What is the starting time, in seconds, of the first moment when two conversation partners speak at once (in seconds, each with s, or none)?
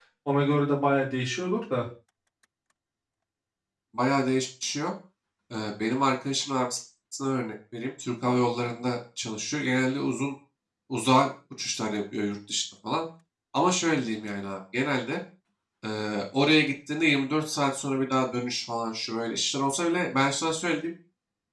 none